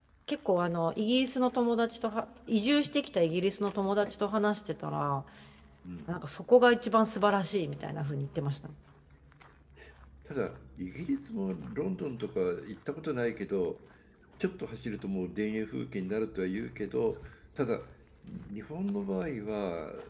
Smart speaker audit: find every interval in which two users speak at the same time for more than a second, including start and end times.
none

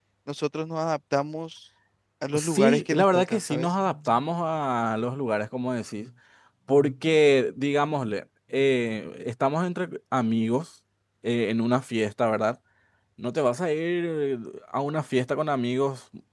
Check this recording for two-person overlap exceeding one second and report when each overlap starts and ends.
2.3-3.7

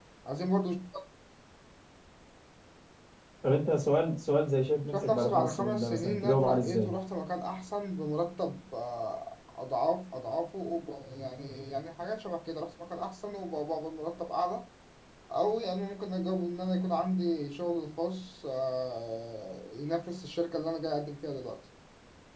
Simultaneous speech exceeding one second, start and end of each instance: 4.9-6.9

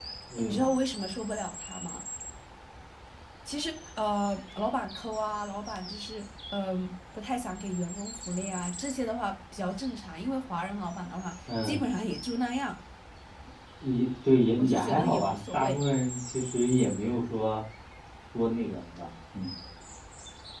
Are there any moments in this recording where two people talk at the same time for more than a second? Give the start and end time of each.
14.6-15.8

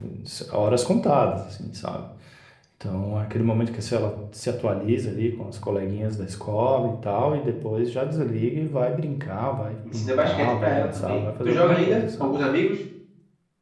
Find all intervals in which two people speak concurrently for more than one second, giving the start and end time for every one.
9.9-12.4

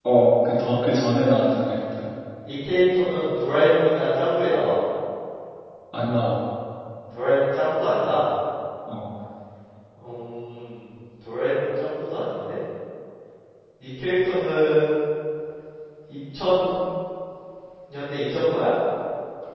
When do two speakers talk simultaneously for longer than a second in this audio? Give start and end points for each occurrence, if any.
none

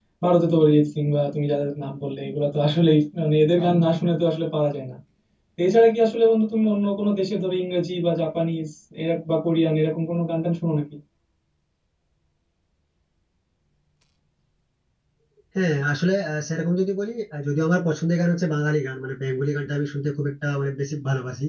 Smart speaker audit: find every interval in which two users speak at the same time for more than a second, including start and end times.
none

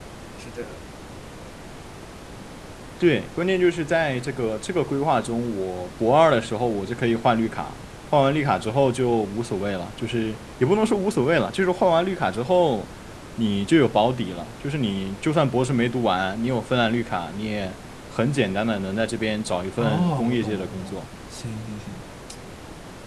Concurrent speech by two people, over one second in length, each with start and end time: 19.8-21.0

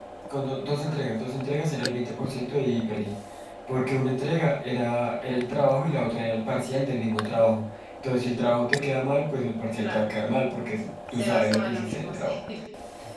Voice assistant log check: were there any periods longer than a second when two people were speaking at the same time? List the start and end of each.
11.1-12.4

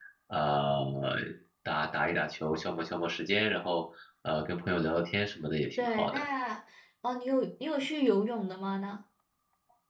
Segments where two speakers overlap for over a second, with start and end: none

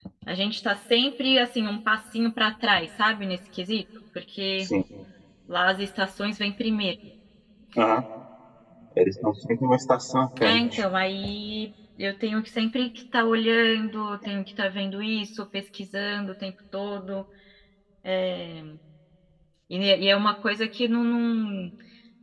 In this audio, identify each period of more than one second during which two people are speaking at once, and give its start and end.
none

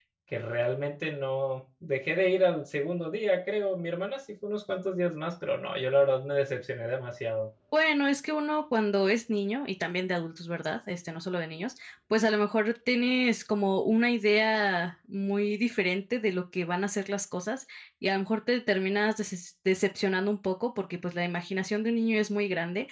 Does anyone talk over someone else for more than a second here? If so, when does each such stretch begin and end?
none

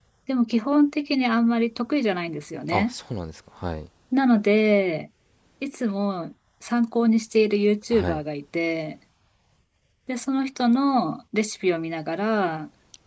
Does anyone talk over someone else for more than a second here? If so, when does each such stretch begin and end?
none

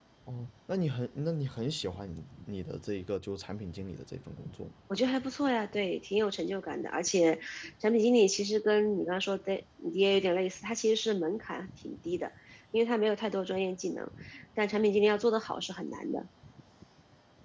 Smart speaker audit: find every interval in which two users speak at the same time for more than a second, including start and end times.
none

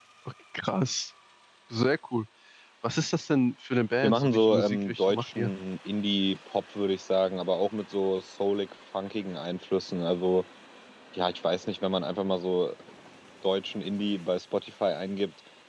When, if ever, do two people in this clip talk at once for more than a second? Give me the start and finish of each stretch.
4.0-5.5

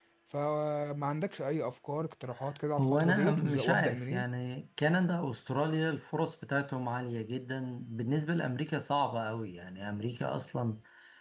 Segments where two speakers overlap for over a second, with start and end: 2.8-4.2

